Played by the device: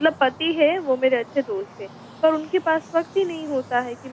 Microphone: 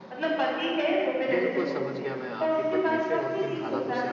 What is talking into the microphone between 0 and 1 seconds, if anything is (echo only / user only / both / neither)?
echo only